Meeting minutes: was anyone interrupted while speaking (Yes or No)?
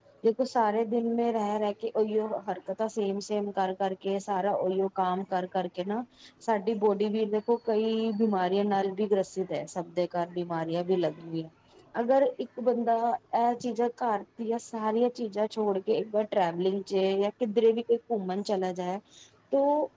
No